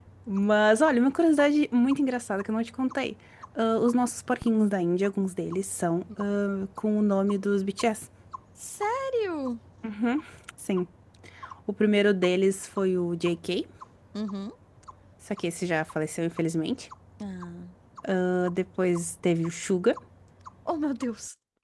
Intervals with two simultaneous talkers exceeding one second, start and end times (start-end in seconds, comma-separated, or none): none